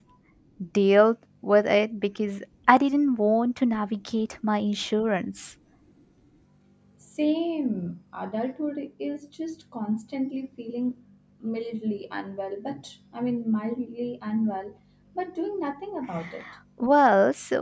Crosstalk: none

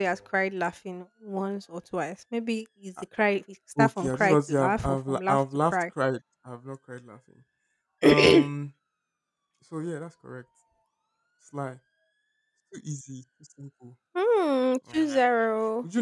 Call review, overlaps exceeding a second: present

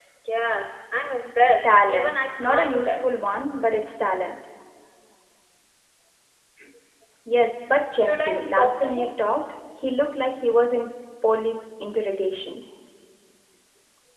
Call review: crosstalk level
present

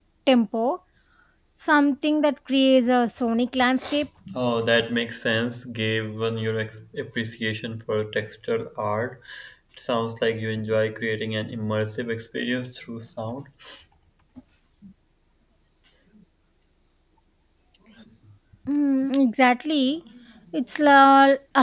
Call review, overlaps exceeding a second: none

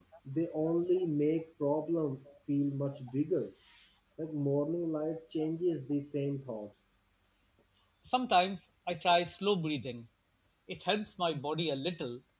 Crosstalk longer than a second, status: none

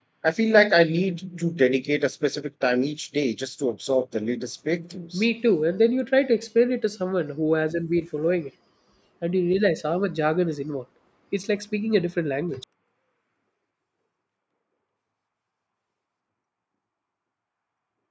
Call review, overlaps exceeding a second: none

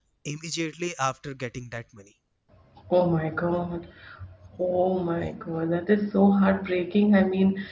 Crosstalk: none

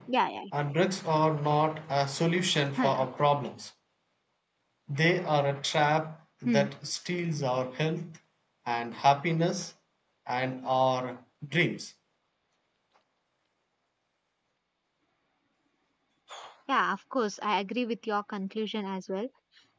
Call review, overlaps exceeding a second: none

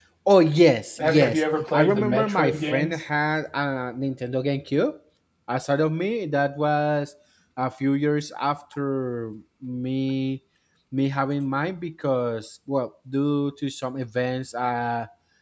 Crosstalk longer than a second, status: present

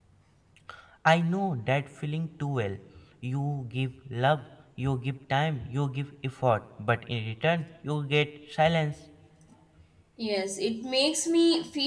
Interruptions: none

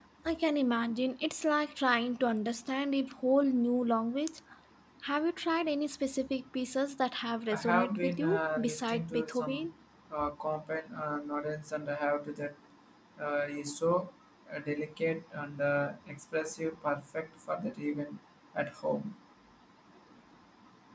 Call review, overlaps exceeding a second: present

